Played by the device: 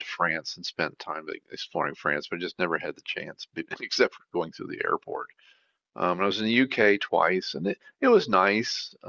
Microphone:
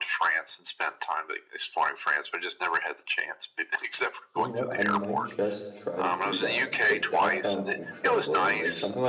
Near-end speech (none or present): present